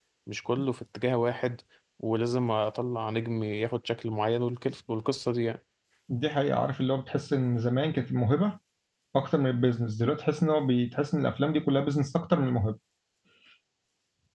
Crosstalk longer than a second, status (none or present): none